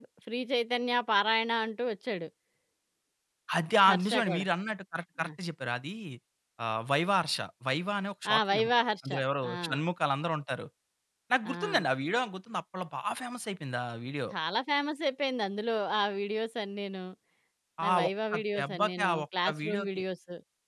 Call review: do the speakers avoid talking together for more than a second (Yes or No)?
No